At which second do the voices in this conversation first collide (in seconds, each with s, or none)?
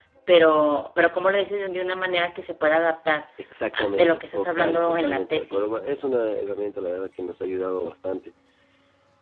3.7 s